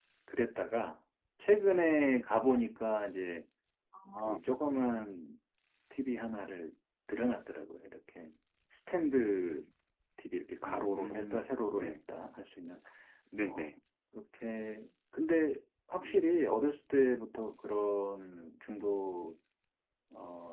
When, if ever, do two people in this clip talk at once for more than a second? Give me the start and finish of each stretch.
10.7-12.0

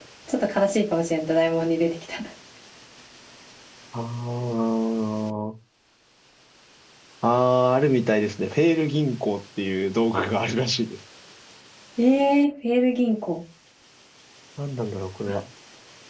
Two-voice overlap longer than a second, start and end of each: none

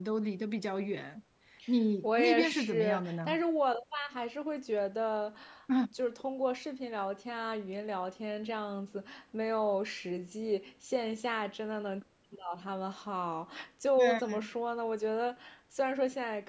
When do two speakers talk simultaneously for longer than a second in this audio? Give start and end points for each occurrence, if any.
2.0-3.4

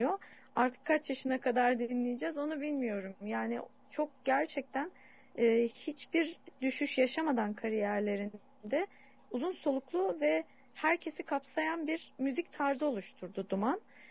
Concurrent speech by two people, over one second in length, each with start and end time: none

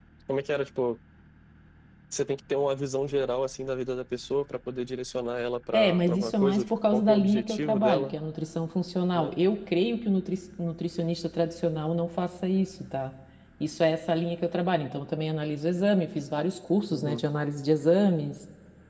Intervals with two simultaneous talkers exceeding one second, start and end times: 5.7-8.1

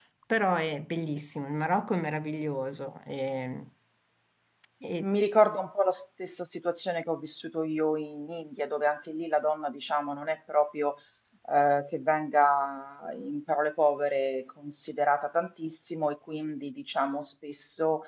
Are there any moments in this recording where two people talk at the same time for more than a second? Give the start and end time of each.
none

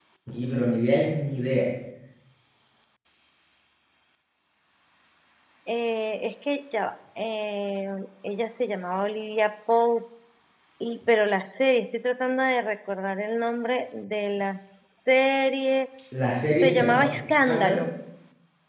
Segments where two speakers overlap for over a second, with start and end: 16.5-17.9

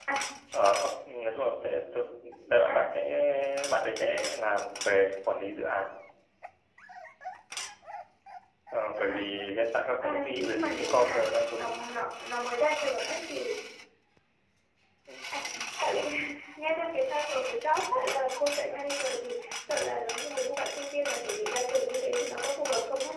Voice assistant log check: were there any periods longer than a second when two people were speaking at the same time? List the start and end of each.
10.0-11.9

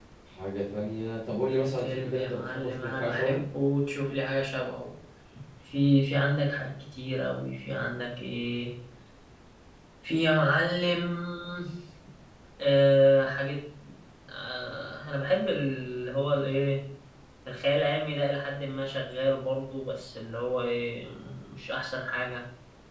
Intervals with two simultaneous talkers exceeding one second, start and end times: 1.8-3.4

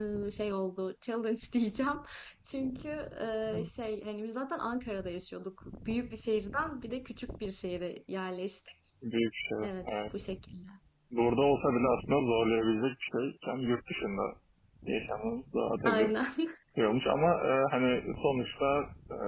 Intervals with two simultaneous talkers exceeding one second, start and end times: none

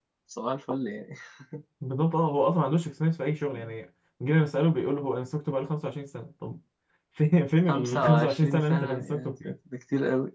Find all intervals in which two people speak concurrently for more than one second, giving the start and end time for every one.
7.7-9.5

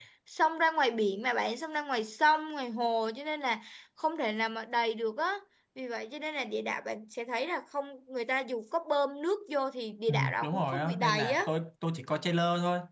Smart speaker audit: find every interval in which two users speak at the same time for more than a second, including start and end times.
10.1-11.4

